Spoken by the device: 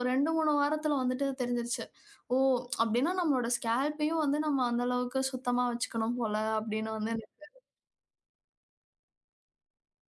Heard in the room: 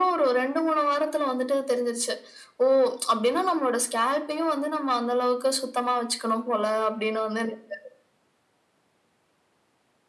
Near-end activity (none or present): none